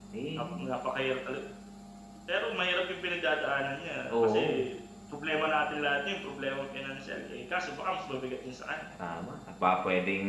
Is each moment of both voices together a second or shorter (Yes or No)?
Yes